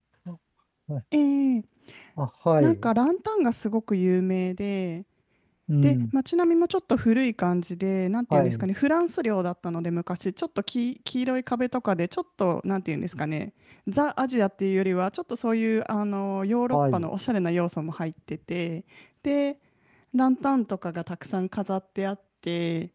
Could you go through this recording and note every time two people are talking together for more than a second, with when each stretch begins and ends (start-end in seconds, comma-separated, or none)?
none